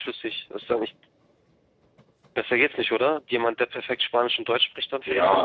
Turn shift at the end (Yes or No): Yes